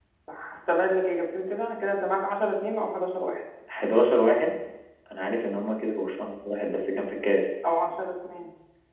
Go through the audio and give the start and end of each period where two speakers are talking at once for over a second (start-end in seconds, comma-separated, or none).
none